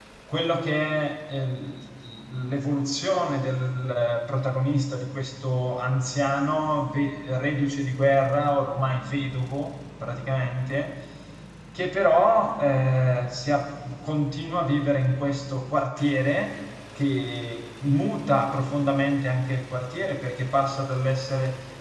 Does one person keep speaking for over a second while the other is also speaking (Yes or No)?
No